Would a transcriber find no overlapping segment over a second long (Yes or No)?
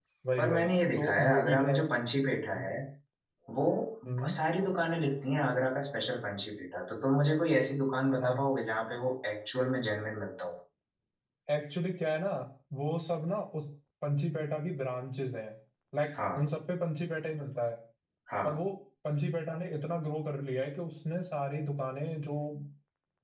No